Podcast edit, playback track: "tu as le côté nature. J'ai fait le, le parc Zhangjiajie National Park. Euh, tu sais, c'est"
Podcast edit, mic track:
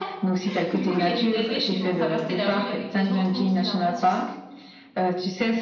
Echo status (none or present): present